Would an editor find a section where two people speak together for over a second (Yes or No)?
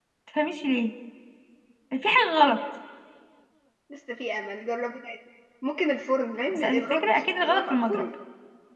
Yes